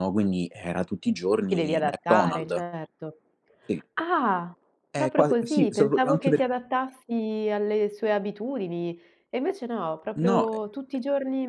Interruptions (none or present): present